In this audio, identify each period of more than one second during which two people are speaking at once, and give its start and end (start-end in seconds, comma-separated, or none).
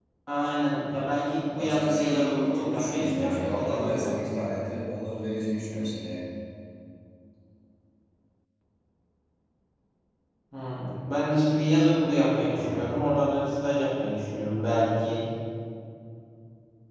1.6-4.2